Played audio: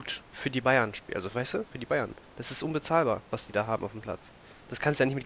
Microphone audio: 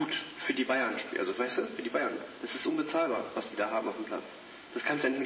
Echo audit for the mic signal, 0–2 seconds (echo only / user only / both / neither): echo only